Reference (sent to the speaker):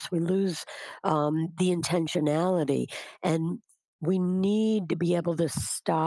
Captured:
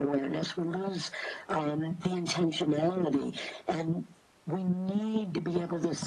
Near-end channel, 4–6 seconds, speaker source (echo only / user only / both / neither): echo only